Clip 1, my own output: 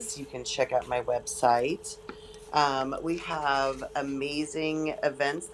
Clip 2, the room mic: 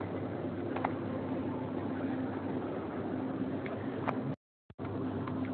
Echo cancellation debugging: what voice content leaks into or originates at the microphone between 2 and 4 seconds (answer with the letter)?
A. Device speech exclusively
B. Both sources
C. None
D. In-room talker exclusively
C